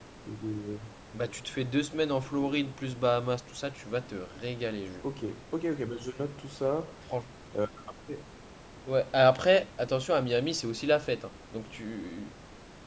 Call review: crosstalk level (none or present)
none